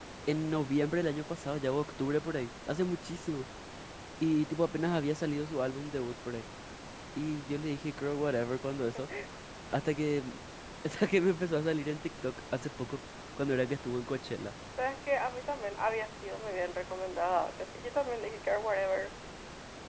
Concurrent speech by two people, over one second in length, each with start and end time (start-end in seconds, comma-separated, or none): none